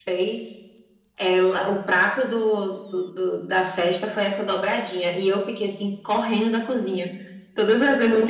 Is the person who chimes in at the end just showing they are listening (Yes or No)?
Yes